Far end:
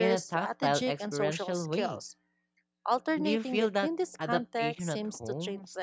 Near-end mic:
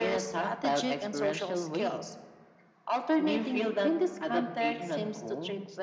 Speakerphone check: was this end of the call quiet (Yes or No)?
Yes